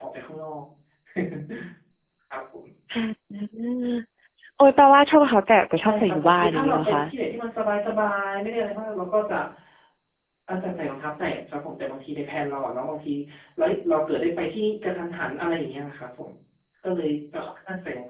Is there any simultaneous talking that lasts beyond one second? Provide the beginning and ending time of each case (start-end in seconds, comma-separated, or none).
5.8-7.0